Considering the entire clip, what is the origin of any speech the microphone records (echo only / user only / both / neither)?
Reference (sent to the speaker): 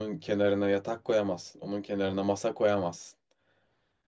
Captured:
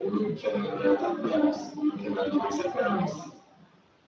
echo only